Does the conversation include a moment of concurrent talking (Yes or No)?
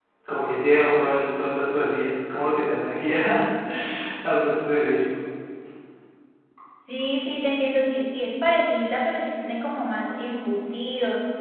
No